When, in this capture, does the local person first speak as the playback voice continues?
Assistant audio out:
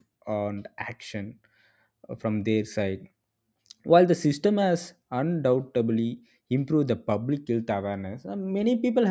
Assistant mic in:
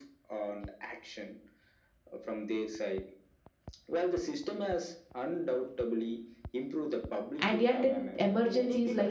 7 s

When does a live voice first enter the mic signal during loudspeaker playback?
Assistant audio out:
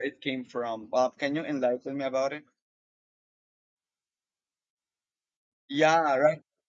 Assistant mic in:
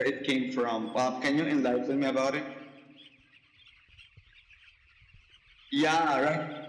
none

